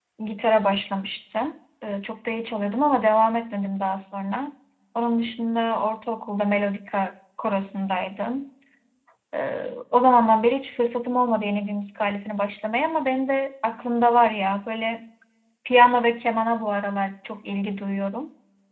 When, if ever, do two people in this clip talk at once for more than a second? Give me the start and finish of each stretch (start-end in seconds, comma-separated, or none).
none